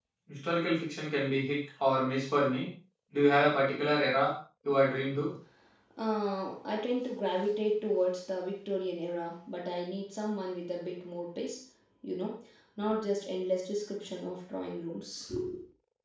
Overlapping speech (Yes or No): No